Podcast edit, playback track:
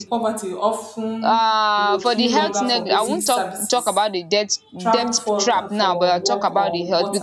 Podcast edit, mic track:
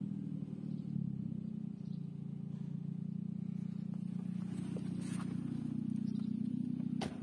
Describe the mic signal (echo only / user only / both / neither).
neither